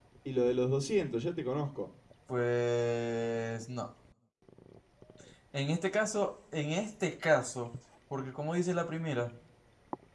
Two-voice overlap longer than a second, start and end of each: none

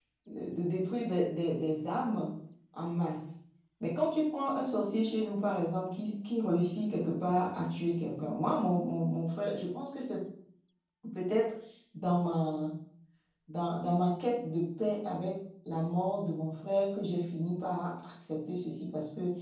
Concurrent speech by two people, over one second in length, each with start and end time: none

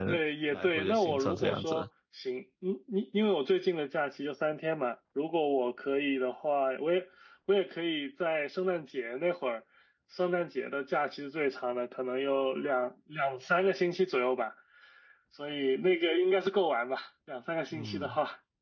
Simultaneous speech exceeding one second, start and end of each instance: 0.5-1.9

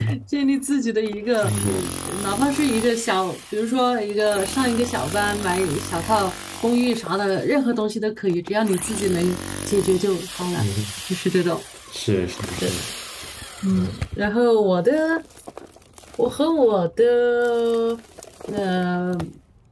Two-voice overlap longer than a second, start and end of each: none

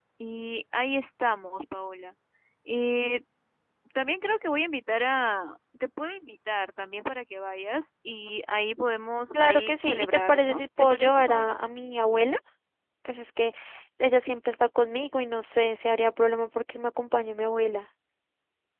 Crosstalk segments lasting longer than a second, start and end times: 9.3-11.5

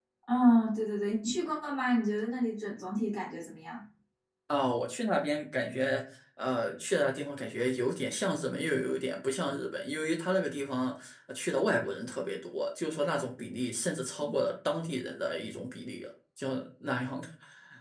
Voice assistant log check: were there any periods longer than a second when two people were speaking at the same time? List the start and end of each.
none

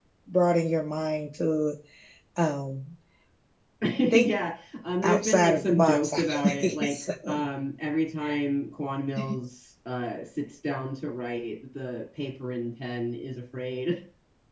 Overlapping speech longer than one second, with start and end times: 5.0-7.1

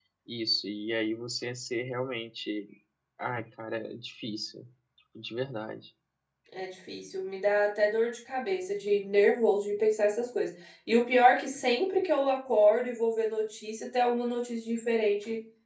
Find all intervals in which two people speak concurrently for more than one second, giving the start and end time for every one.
none

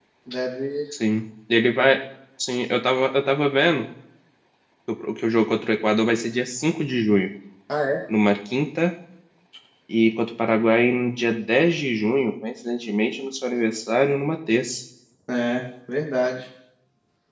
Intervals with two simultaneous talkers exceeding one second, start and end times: none

